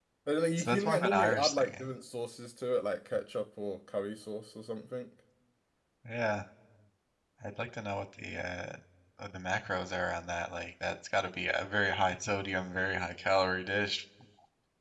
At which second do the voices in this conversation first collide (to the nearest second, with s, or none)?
1 s